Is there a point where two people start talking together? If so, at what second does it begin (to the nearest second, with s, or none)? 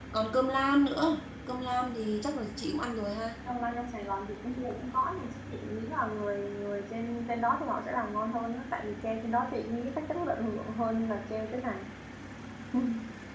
none